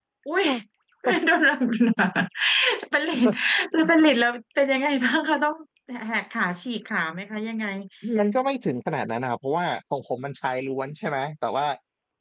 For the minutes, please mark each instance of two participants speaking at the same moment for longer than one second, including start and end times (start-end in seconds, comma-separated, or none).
none